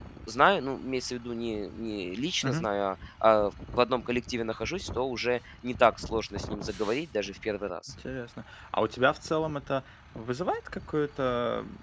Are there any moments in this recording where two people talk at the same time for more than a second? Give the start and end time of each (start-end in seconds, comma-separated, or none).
none